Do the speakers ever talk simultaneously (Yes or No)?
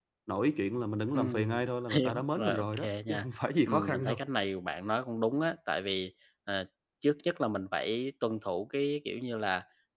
Yes